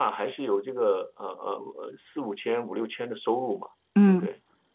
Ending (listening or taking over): listening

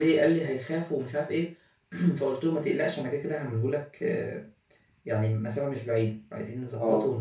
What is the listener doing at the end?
taking over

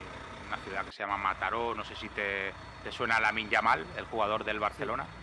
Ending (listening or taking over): listening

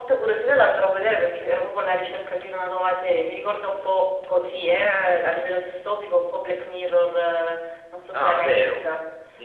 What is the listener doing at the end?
taking over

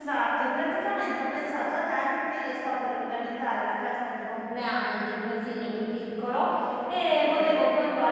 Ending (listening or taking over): listening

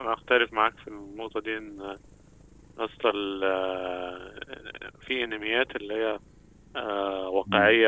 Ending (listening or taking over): listening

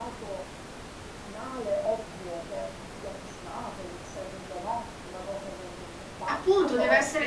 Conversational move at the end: taking over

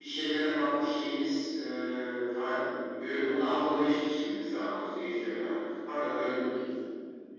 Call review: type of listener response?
taking over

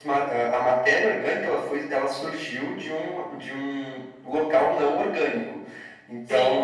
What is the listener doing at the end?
taking over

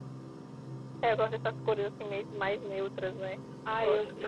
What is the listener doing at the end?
taking over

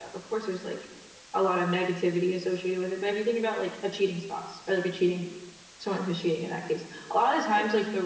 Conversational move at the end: listening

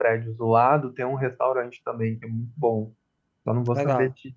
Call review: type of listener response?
listening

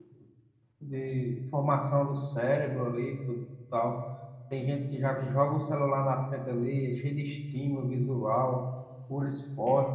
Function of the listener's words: listening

